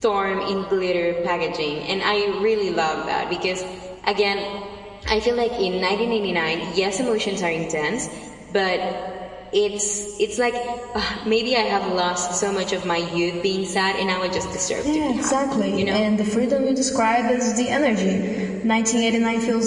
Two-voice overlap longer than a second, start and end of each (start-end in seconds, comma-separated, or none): 14.8-16.1